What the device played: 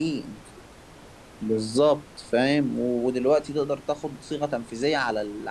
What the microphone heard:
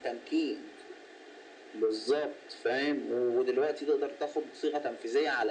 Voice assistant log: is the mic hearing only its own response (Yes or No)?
Yes